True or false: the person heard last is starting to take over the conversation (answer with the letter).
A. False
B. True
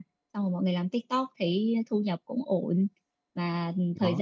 A